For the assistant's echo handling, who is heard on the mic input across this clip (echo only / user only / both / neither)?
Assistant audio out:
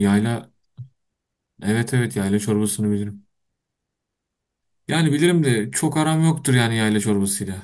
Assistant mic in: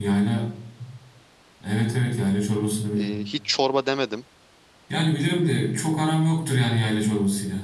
both